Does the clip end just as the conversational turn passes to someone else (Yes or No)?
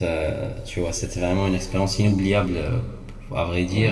No